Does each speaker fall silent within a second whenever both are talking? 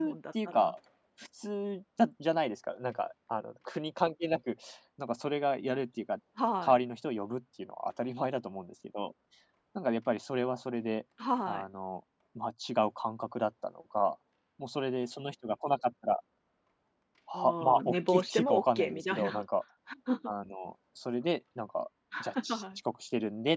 No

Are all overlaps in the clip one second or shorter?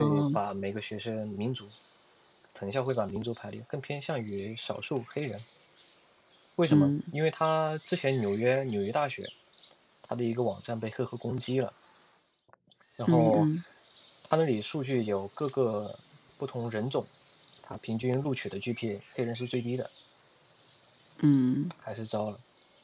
Yes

